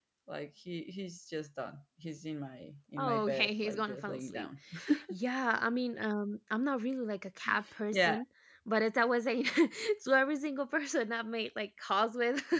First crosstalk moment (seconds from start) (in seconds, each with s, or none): 3.0 s